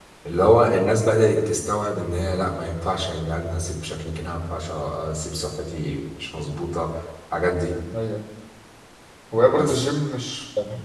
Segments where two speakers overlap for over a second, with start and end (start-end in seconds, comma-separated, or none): none